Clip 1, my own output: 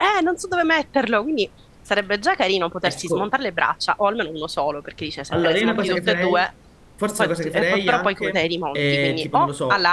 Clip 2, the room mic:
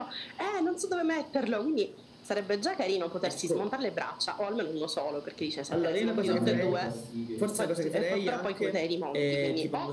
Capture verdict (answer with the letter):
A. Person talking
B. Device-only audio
A